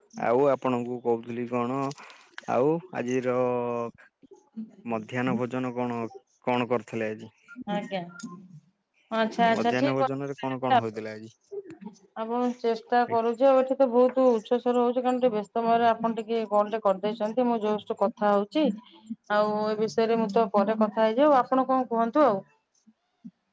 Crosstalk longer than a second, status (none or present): none